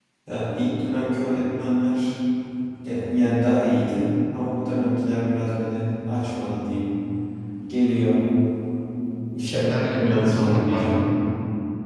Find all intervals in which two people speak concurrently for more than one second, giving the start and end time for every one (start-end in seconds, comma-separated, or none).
9.4-11.0